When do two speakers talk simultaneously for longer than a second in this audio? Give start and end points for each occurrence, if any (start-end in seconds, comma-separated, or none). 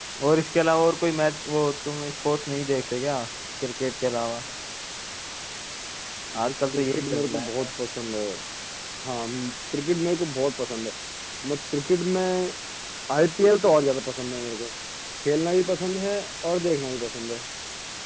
6.4-7.7